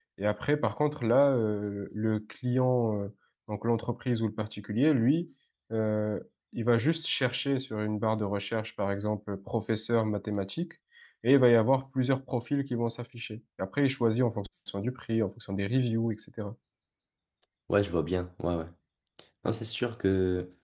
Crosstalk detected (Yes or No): No